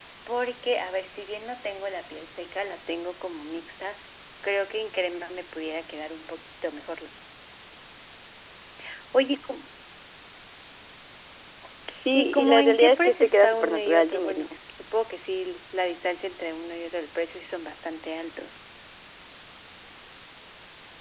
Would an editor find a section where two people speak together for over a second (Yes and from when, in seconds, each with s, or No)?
Yes, from 12.1 s